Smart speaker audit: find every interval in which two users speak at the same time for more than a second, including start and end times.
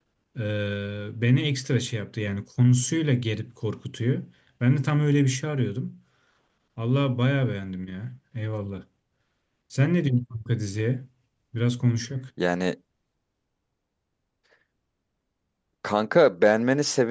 none

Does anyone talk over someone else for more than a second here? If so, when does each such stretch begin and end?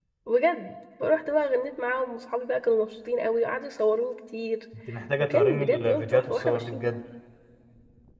5.2-7.0

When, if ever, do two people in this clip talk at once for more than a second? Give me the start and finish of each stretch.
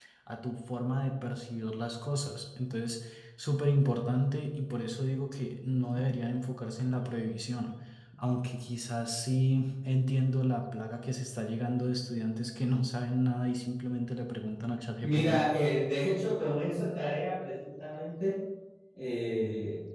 none

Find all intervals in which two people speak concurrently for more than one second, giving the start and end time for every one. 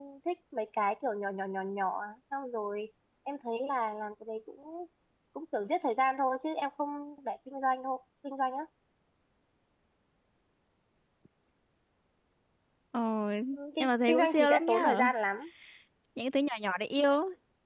13.8-15.0

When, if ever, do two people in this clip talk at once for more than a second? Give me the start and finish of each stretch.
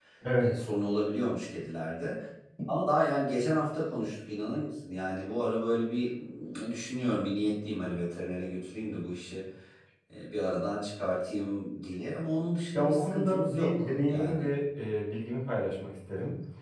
12.8-14.5

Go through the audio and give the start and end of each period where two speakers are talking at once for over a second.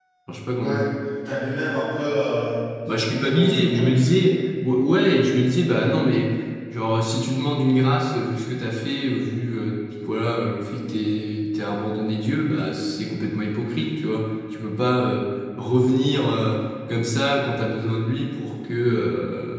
2.9-4.1

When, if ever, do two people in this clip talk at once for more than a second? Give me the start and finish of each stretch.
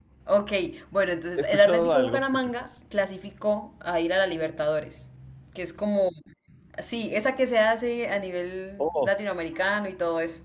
1.4-2.7

